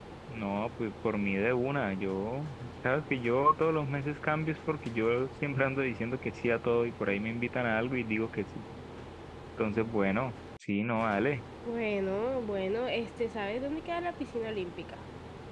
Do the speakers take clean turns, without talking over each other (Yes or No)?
Yes